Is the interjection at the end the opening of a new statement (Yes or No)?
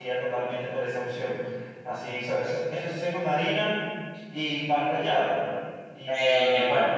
Yes